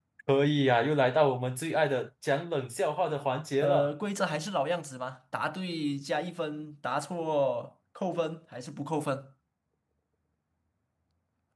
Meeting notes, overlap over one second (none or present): none